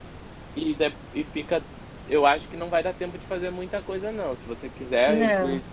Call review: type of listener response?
listening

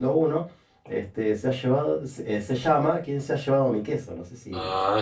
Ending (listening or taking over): taking over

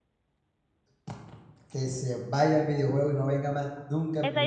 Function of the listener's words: taking over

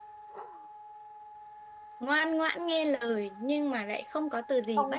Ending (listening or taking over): taking over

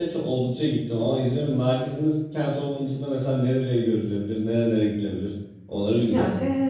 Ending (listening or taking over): taking over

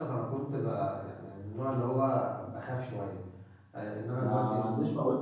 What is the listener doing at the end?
taking over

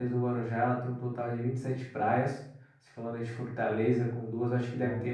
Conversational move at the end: listening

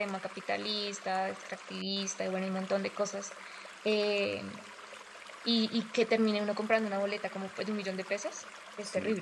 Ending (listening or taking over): taking over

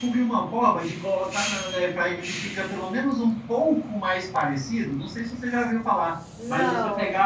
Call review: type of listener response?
listening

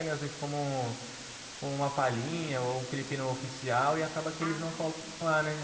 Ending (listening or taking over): listening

